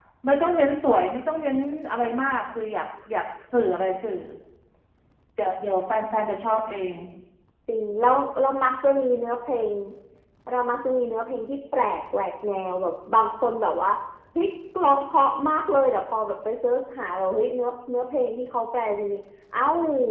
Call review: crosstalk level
none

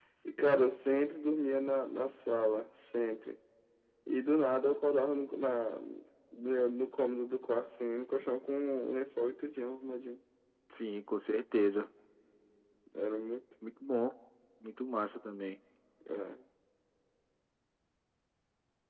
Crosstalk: none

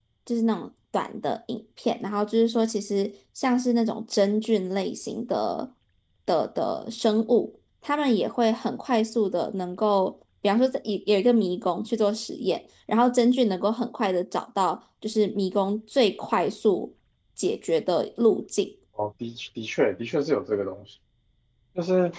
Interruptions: none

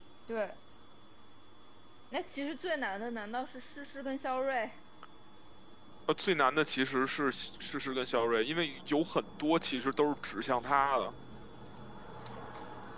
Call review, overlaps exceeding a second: none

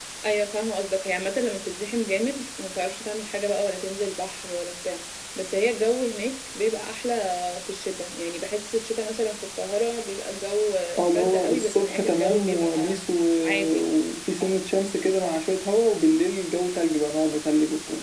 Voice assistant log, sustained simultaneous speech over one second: present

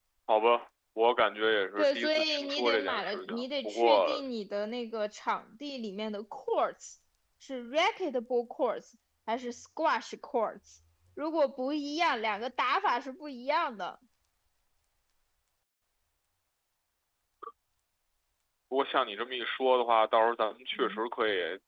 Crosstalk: present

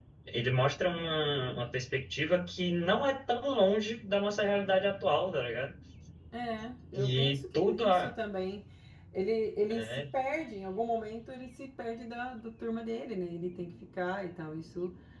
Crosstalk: present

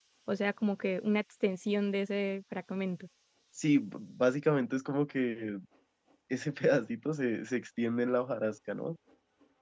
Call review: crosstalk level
none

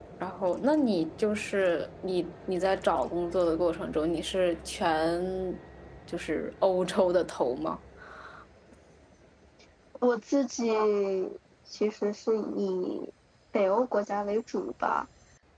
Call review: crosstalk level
none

